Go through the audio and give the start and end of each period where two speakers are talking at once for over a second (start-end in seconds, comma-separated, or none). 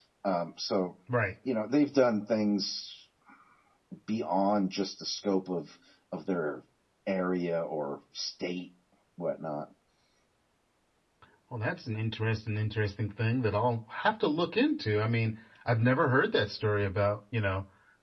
none